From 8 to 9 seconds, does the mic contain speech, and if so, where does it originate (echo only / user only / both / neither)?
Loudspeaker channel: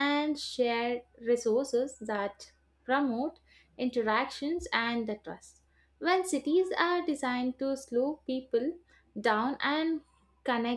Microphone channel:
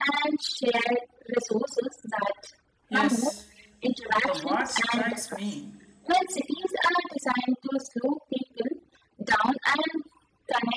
echo only